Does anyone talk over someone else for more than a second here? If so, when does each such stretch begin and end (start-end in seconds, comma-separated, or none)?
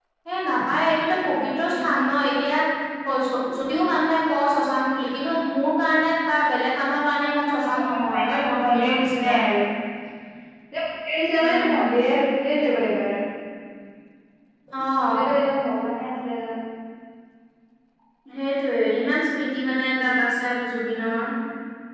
7.6-9.3